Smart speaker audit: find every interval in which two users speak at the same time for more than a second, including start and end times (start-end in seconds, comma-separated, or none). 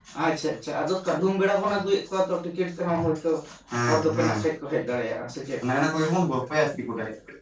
none